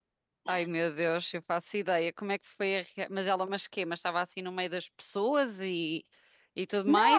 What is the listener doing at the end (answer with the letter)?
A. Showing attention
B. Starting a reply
B